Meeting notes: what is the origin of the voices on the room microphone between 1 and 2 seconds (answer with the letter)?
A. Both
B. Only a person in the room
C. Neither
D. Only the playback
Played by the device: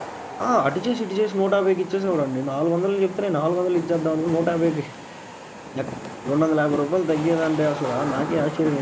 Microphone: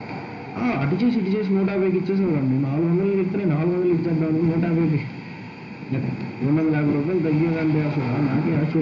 D